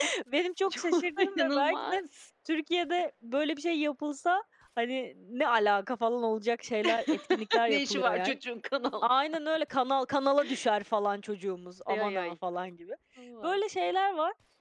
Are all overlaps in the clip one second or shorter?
No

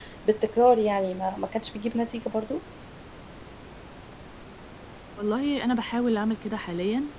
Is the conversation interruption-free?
Yes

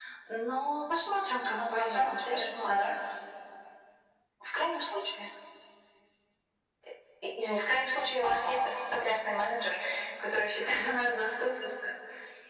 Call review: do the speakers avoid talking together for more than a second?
No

